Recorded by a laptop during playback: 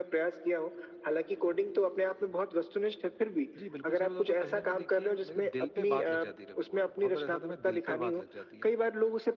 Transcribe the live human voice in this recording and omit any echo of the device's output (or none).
जी, बिल्कुल सही बताऊँ तो कहीं न कहीं देखिए मेरे दिल पे बात लग जाती है कभी-कभार। बहुत बार ऐसा होता है मेरे दिल पे बात लग जाती है